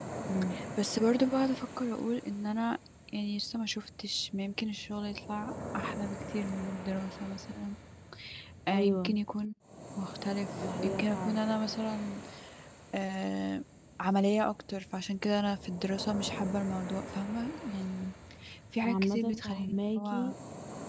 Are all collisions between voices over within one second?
No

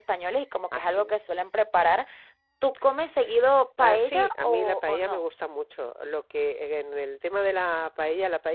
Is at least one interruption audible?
Yes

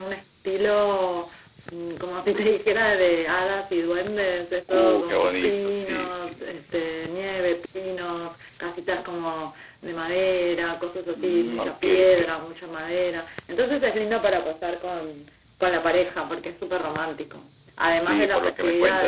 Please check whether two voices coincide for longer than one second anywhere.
Yes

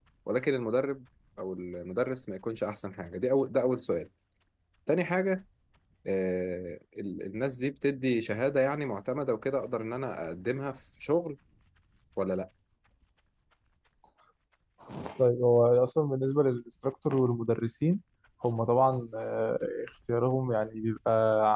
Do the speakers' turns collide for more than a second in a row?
No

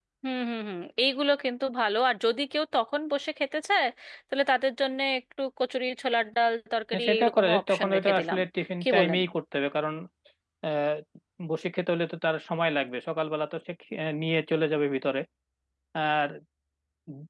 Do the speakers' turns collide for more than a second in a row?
Yes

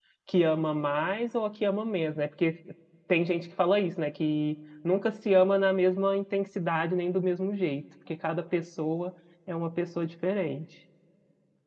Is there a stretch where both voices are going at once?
No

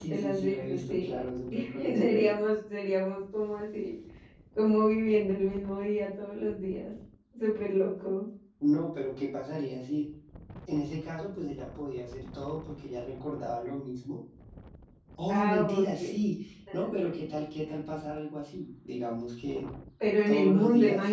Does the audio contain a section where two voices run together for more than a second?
Yes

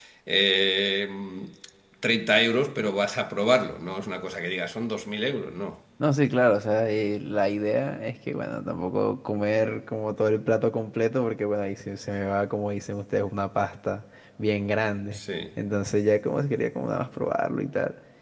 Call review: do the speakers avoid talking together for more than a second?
Yes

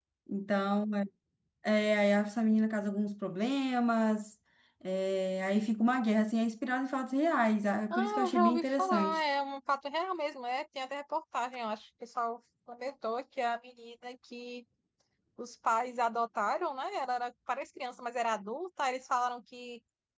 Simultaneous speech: Yes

